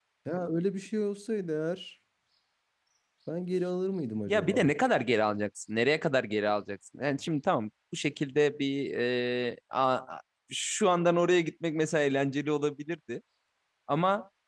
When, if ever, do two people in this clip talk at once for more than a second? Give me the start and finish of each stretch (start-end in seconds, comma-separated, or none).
none